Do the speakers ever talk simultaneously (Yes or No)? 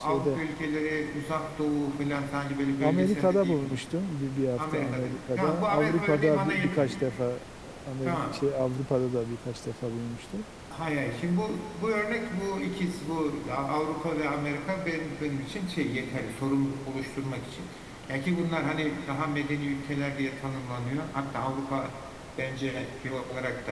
Yes